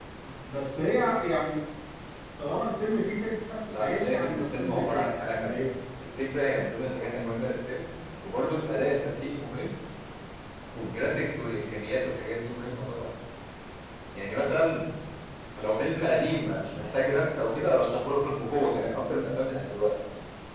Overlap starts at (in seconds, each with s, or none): 3.7 s